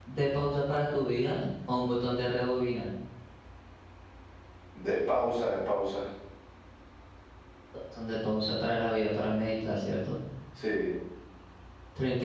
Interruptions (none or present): none